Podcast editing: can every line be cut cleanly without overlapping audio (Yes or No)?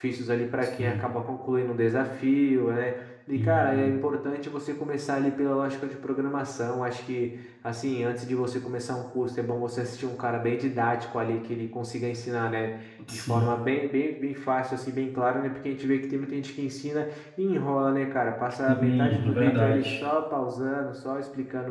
No